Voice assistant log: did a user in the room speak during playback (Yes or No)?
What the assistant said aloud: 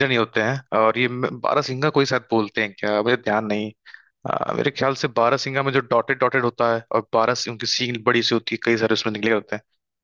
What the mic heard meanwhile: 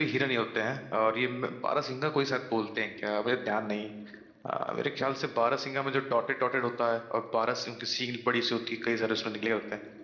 No